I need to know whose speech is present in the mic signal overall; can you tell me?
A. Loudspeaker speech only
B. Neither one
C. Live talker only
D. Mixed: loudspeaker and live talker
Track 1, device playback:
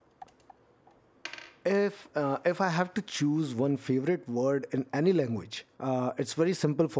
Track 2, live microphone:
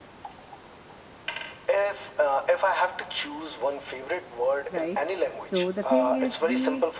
D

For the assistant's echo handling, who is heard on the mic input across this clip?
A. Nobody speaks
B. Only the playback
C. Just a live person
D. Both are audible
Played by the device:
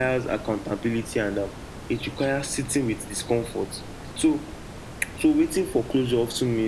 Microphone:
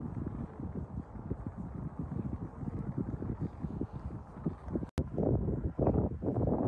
A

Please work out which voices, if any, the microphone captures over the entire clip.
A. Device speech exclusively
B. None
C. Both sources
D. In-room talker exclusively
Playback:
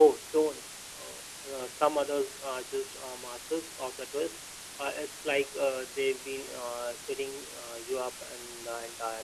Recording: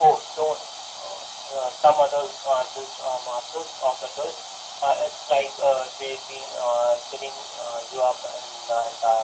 A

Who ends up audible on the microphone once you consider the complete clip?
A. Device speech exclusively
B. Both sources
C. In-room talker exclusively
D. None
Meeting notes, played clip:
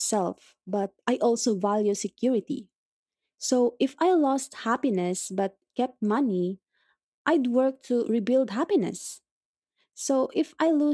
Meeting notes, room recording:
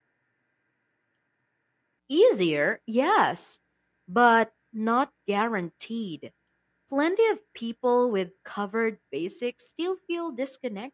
C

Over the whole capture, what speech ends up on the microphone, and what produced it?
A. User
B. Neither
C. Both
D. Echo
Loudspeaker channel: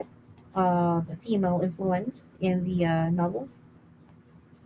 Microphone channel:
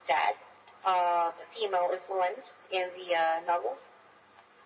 D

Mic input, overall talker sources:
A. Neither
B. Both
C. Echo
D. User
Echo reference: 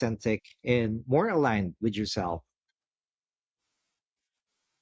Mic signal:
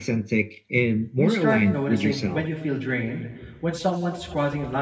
B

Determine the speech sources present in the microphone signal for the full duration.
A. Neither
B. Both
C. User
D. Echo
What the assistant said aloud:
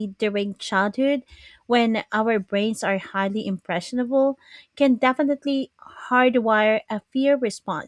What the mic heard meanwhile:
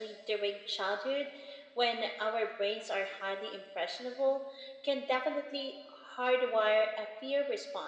D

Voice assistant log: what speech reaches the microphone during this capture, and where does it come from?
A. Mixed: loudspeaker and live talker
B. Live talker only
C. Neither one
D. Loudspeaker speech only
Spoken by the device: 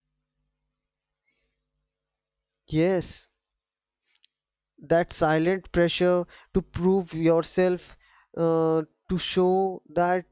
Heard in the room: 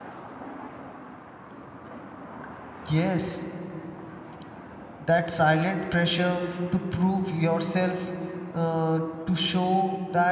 D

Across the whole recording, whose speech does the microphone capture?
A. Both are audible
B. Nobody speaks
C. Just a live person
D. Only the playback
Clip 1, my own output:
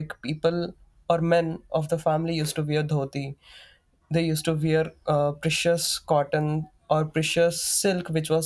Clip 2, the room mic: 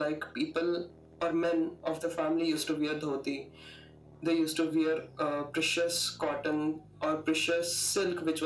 D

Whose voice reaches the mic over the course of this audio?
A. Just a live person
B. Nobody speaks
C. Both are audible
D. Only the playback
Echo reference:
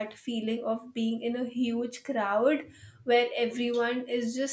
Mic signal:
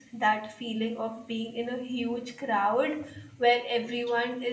D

